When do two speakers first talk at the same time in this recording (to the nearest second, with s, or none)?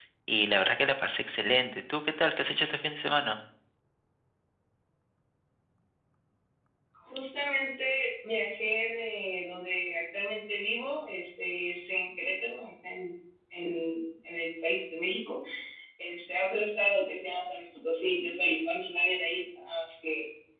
none